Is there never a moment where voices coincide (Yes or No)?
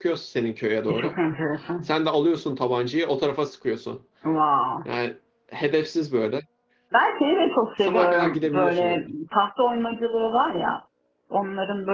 No